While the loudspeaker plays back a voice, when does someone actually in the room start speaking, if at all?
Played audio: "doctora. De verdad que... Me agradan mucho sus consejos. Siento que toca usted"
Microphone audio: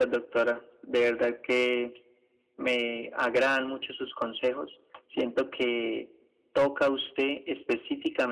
none

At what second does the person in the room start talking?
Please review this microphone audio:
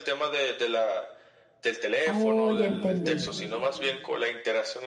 2.1 s

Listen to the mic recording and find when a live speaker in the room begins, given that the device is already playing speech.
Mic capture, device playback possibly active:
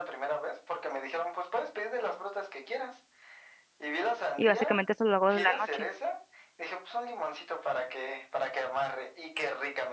4.4 s

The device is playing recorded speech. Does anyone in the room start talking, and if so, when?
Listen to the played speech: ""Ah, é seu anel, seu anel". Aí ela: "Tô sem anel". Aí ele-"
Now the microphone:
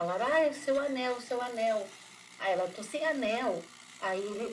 none

